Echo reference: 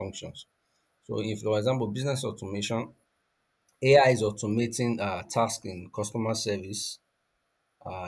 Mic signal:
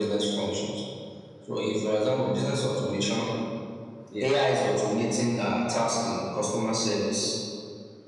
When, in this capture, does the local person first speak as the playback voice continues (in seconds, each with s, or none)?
4.1 s